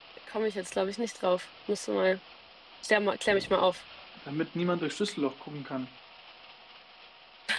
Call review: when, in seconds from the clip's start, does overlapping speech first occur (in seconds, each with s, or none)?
none